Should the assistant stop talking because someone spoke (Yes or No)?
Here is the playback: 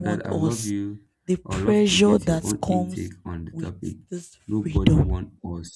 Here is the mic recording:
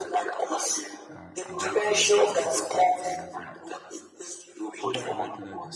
Yes